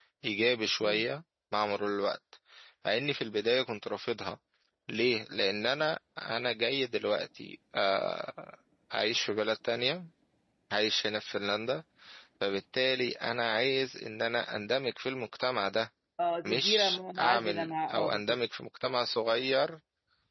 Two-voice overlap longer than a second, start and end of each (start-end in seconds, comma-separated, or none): 16.4-18.4